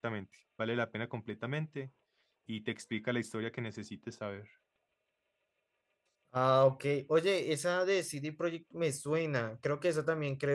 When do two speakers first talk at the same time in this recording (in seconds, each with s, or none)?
none